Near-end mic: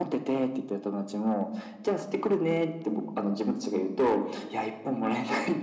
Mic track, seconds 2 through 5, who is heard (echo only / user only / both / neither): echo only